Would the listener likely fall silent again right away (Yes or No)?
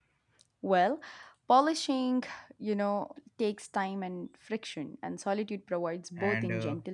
No